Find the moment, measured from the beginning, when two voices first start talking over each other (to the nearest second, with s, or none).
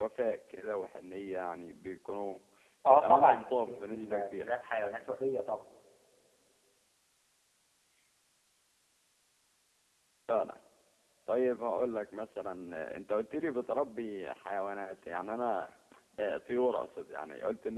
3 s